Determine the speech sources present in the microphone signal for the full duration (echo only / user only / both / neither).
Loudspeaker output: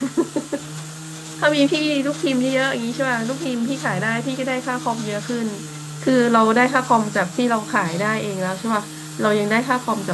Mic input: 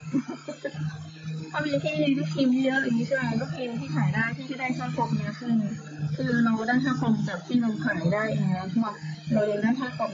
echo only